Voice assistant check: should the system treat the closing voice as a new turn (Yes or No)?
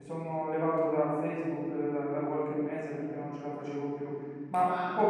No